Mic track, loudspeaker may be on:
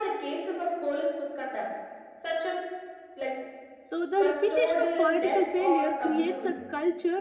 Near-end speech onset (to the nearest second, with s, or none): 4 s